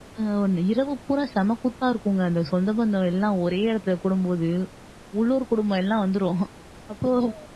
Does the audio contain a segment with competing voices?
No

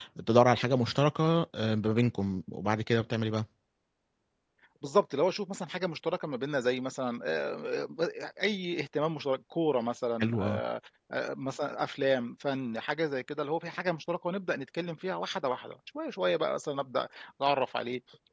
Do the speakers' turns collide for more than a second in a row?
No

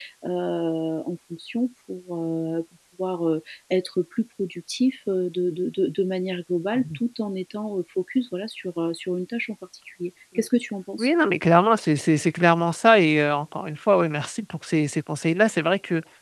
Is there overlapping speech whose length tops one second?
No

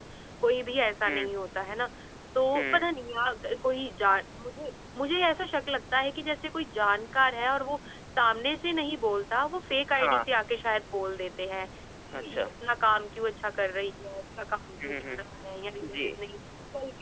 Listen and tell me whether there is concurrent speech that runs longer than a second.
No

